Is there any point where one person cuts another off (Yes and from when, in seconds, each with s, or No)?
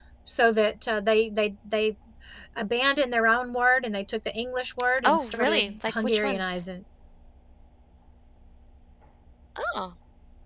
Yes, from 5.0 s